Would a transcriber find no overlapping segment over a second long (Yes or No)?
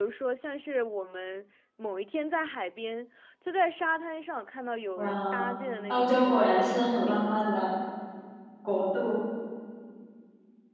No